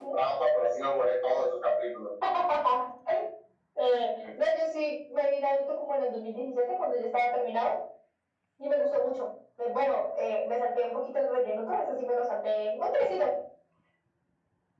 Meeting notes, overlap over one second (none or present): none